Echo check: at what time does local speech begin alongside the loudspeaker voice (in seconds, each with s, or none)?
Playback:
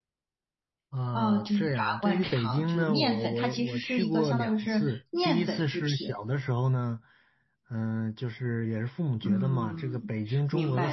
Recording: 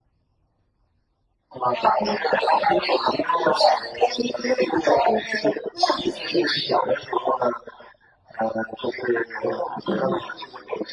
none